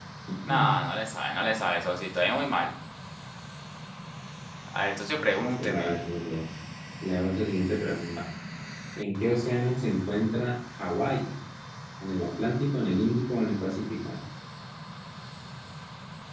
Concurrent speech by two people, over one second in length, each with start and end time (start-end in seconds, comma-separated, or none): none